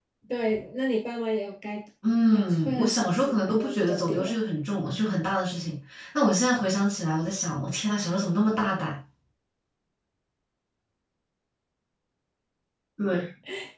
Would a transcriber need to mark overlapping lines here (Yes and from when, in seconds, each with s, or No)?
Yes, from 2.3 s